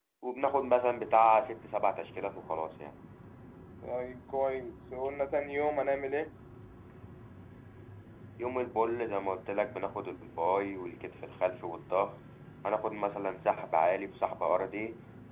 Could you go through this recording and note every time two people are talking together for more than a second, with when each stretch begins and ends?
none

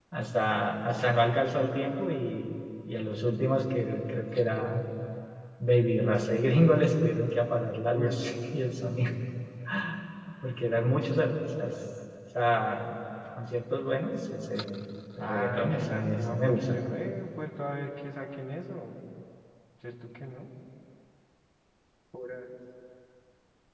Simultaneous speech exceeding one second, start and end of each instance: 15.2-16.8

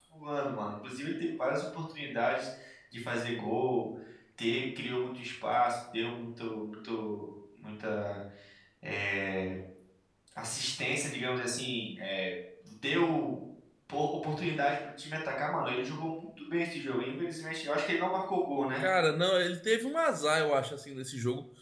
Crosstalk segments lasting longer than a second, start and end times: none

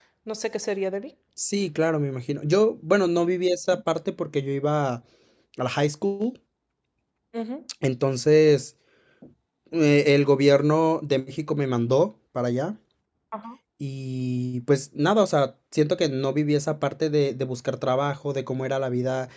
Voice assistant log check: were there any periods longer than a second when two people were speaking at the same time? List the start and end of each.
none

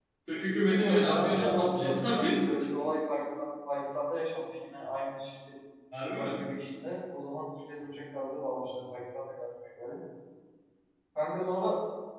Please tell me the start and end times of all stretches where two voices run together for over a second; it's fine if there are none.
0.6-2.9

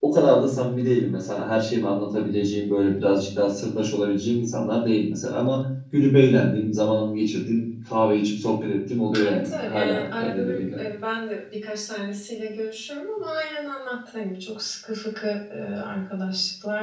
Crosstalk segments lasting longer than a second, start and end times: 9.2-10.8

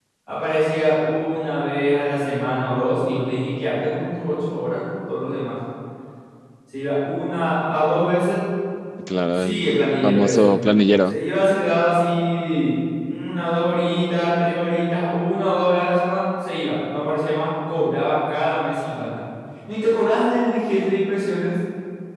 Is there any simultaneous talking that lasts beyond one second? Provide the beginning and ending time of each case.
9.3-10.5

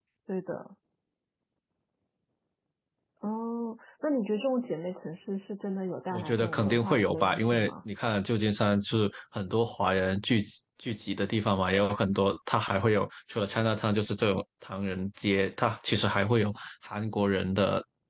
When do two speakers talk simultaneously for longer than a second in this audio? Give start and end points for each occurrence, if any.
6.1-7.7

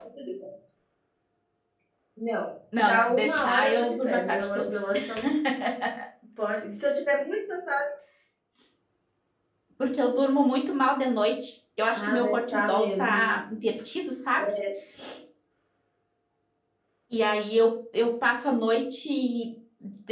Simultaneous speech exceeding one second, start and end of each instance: 2.8-4.7, 11.9-13.3

